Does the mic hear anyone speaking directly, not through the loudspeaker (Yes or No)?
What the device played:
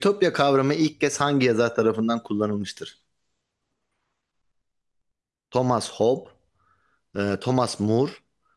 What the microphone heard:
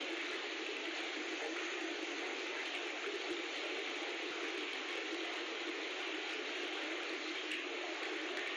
No